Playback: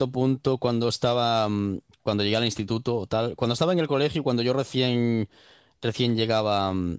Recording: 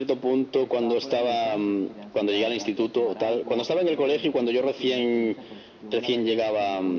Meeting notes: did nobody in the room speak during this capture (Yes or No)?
No